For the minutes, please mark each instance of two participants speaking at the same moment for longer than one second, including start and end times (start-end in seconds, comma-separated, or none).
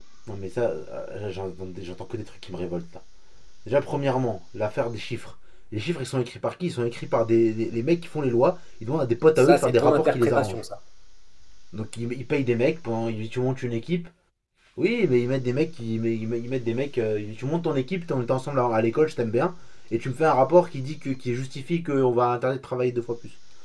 9.4-10.6